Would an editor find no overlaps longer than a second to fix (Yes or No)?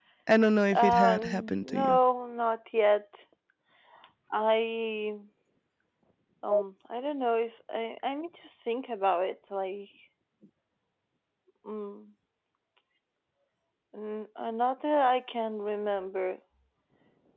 No